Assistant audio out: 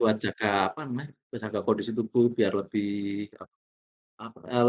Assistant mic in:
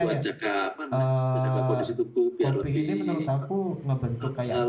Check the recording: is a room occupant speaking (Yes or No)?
Yes